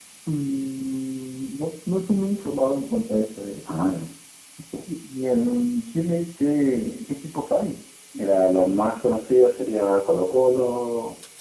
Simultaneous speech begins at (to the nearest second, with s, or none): none